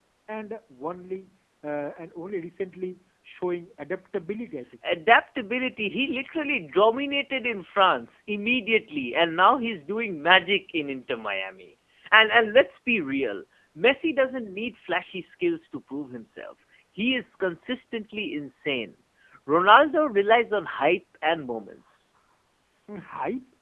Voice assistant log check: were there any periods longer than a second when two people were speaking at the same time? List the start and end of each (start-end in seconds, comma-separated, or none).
none